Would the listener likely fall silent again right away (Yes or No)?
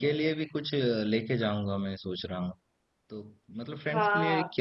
Yes